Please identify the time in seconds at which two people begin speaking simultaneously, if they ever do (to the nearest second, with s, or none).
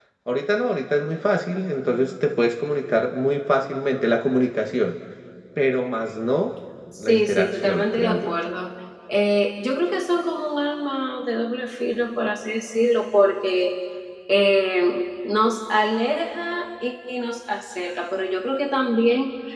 7 s